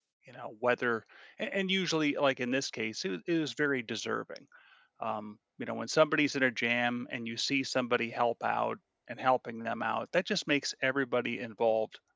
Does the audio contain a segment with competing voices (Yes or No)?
No